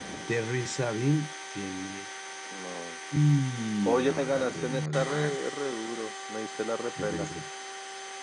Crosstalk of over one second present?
Yes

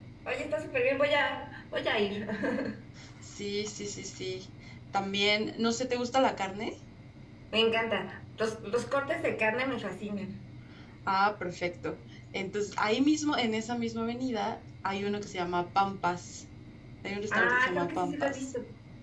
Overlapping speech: Yes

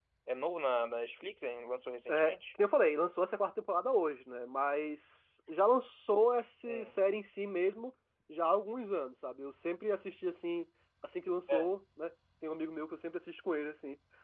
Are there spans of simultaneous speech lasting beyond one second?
No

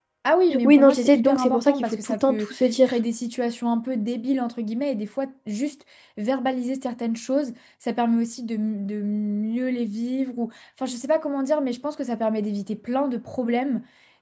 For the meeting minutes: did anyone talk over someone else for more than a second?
Yes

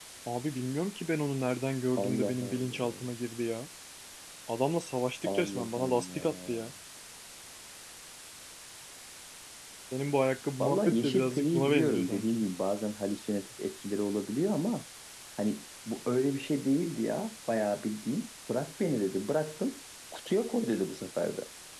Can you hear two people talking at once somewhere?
Yes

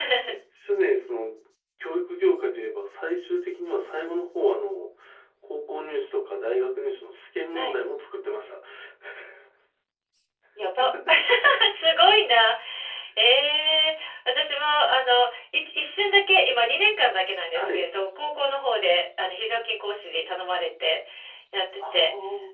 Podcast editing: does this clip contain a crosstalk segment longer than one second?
No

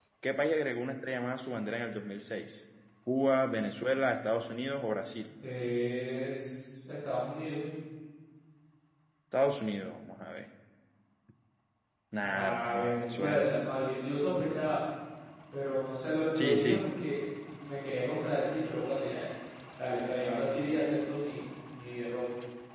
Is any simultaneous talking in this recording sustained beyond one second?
Yes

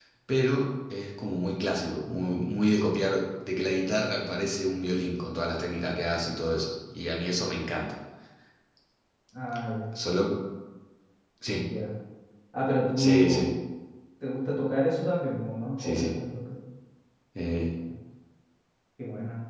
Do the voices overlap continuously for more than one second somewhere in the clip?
No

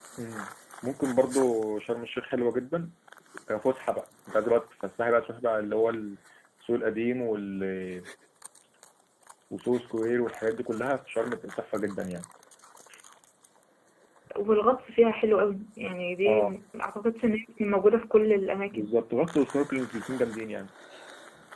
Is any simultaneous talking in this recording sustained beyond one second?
No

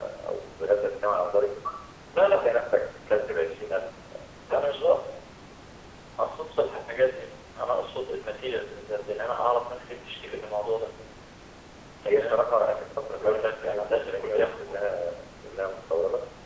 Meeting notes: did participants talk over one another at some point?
Yes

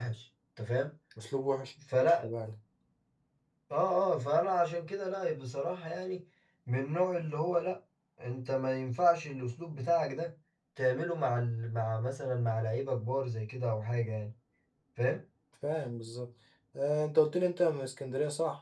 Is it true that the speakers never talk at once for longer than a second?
Yes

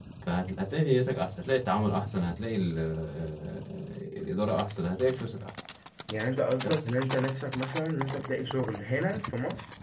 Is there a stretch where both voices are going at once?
No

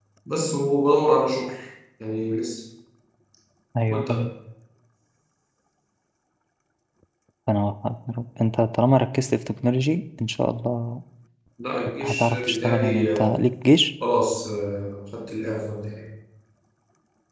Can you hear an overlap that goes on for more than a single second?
Yes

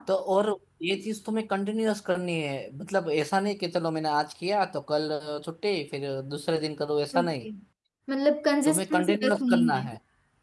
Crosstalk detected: Yes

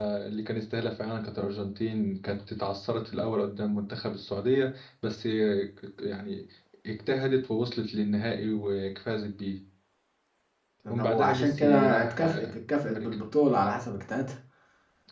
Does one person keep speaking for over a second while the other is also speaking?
Yes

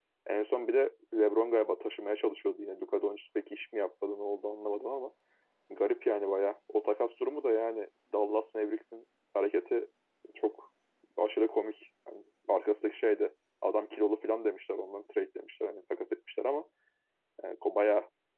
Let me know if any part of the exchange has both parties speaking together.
No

